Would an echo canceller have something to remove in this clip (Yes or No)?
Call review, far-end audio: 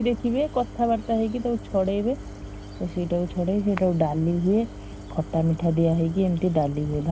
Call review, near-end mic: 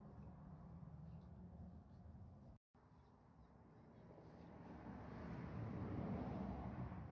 No